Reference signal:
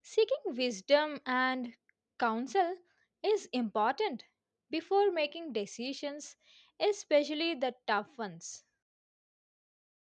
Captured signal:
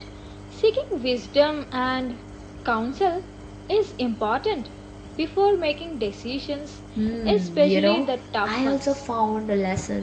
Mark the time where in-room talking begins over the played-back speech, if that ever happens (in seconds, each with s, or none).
7.0 s